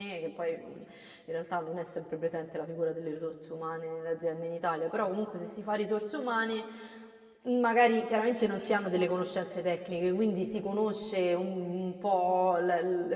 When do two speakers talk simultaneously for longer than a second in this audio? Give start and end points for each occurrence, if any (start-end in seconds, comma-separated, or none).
none